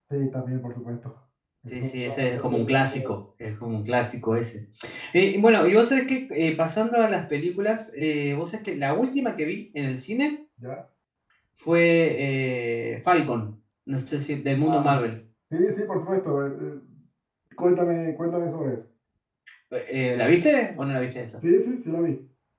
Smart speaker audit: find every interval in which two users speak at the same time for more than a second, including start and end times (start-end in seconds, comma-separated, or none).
1.7-3.1